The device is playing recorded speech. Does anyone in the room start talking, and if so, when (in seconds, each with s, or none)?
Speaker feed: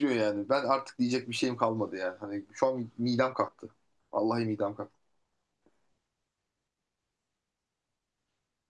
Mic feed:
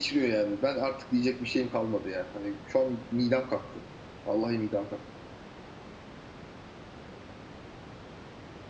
none